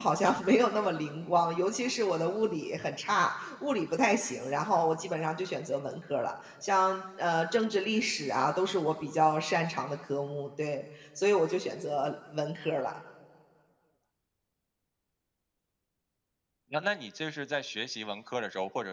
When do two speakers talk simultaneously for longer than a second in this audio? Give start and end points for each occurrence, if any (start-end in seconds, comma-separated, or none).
none